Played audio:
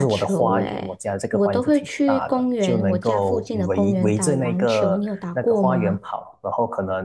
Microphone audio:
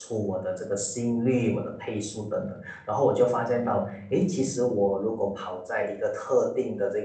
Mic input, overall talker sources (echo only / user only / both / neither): user only